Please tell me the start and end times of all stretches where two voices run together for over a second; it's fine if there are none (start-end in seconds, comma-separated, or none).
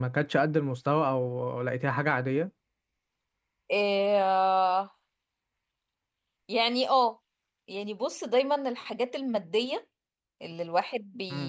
none